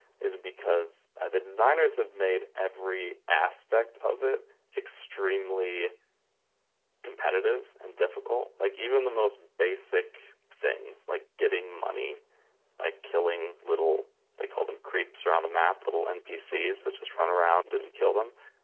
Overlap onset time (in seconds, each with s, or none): none